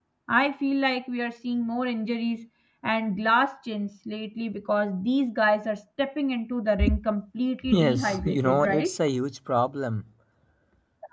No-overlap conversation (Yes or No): No